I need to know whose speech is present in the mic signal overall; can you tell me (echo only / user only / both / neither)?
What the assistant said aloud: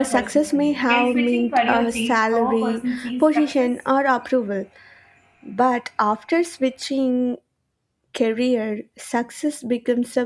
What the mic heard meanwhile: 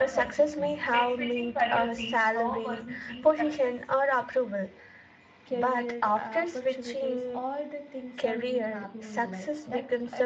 both